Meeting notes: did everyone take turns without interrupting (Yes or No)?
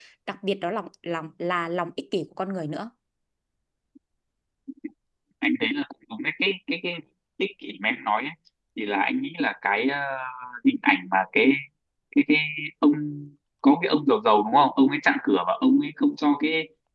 Yes